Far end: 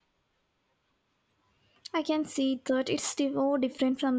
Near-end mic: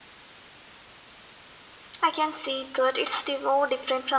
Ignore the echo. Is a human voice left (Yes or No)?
No